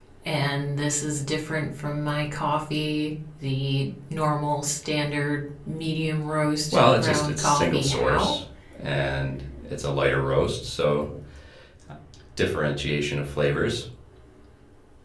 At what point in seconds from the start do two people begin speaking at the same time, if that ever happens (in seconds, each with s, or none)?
6.7 s